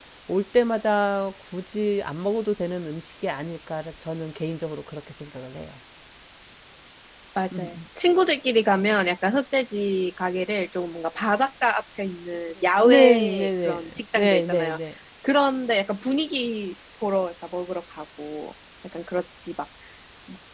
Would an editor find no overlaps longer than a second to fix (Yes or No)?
No